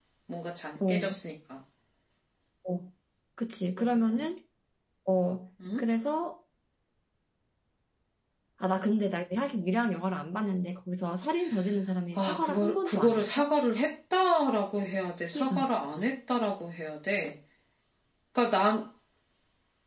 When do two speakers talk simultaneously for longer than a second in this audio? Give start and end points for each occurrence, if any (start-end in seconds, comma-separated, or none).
12.2-13.5